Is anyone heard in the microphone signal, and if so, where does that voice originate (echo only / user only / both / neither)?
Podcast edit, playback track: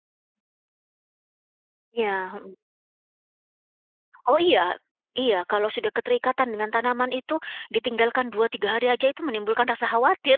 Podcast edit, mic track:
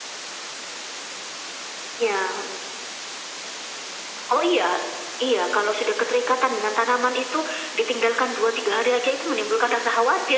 echo only